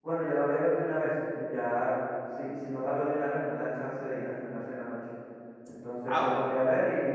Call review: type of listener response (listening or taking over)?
listening